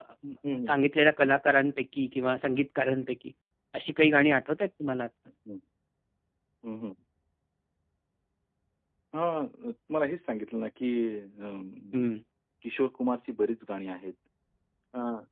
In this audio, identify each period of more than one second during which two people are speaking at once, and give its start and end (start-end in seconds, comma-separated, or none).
none